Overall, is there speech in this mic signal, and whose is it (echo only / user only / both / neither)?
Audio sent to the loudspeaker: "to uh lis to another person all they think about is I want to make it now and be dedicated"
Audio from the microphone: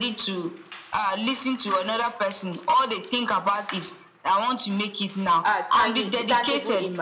both